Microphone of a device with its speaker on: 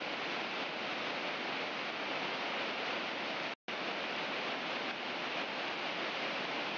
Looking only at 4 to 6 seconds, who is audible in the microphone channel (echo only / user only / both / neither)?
neither